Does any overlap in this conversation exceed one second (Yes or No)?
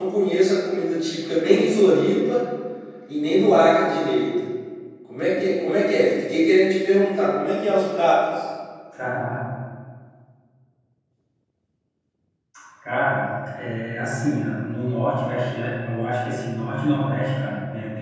No